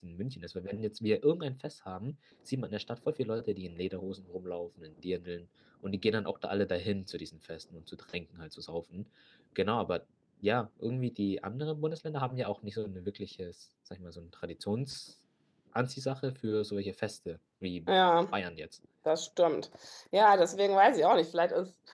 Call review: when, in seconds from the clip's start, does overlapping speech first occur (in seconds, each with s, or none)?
none